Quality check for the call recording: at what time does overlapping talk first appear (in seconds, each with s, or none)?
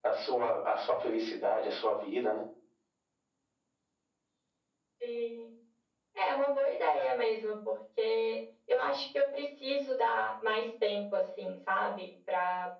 none